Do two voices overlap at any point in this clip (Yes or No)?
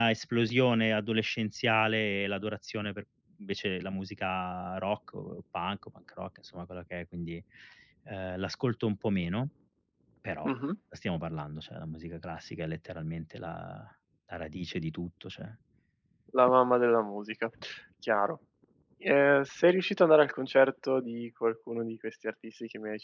No